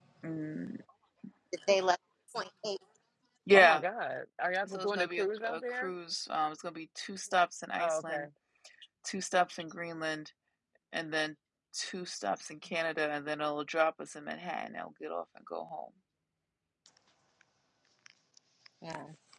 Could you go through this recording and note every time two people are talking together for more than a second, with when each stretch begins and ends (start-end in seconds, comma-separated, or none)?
4.7-5.9